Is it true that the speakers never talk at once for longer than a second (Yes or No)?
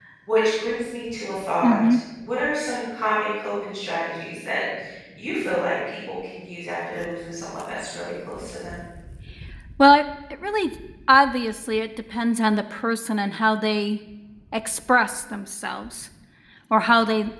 Yes